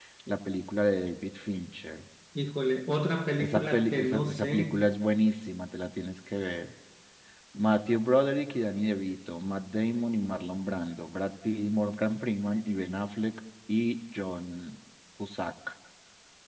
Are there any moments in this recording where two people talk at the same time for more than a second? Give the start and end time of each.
3.4-4.8

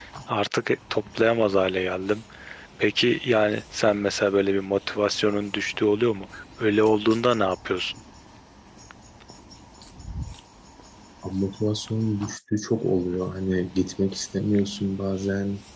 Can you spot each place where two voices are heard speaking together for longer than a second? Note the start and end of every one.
none

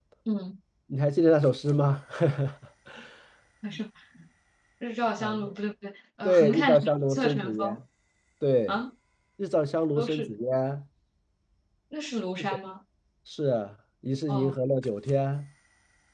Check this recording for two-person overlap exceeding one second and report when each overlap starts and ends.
6.2-7.8

